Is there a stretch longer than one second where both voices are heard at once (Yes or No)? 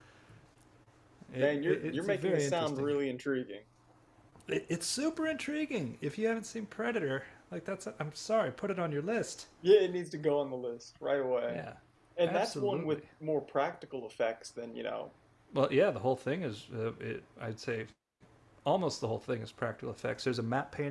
Yes